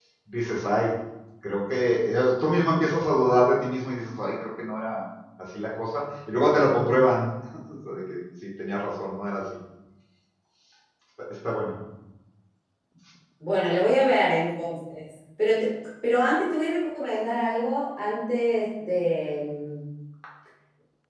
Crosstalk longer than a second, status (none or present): none